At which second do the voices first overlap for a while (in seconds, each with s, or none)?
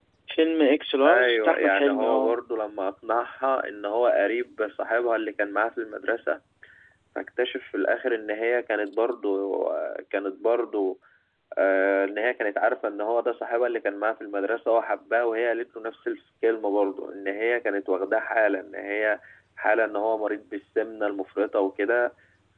1.1 s